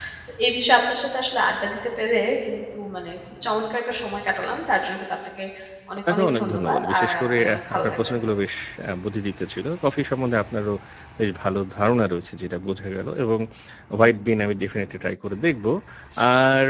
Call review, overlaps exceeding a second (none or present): present